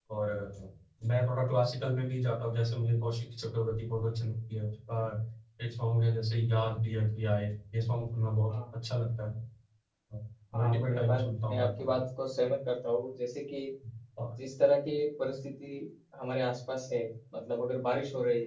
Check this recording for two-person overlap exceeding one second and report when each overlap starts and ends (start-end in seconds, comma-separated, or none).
10.6-12.0